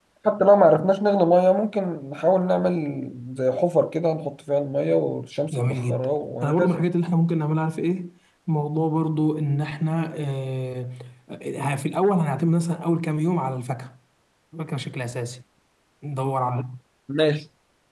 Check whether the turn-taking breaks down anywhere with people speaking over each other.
Yes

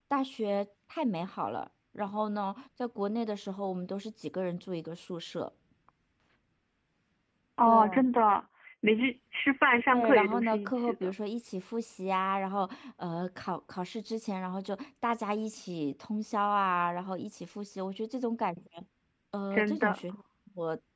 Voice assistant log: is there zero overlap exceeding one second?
No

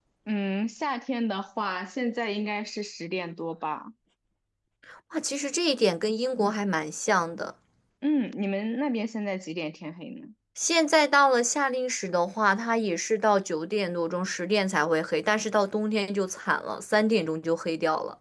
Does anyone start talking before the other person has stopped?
No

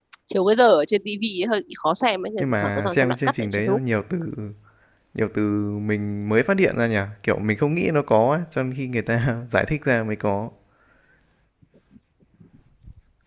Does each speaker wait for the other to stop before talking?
No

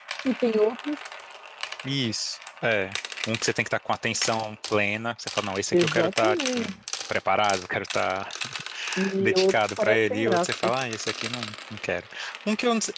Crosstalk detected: Yes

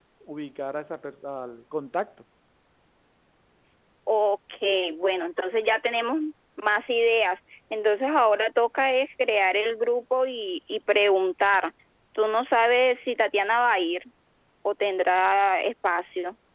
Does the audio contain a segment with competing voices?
No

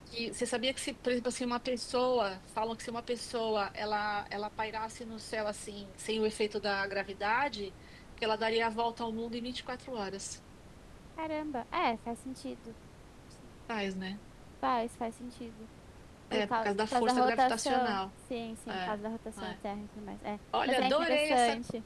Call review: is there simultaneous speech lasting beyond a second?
Yes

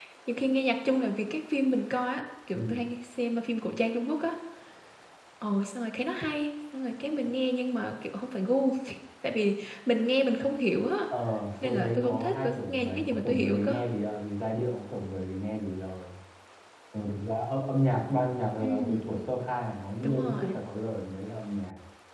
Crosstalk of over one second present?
Yes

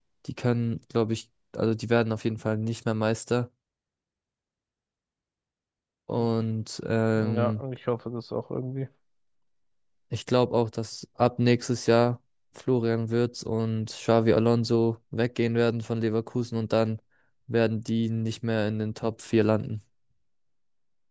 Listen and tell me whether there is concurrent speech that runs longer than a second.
No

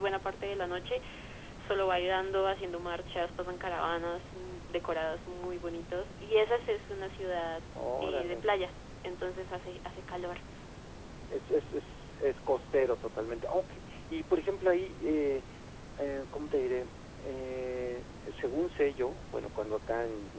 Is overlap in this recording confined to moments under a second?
Yes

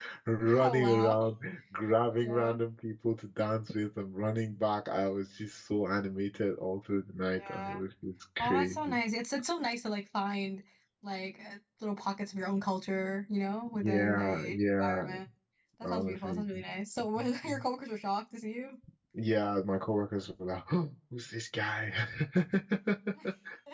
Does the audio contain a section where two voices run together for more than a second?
Yes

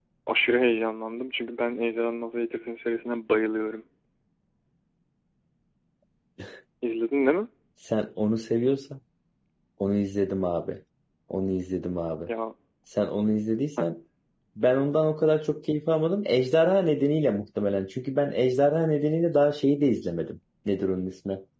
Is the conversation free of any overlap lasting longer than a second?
Yes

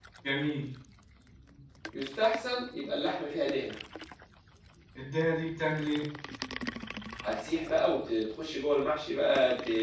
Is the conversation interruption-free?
Yes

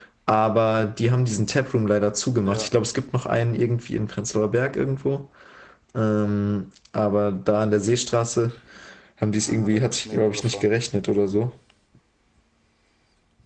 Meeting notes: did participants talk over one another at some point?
Yes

